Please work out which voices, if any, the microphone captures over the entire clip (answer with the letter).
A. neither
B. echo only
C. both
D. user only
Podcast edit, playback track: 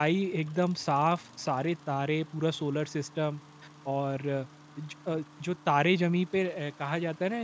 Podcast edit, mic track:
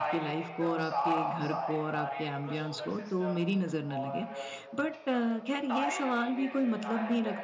C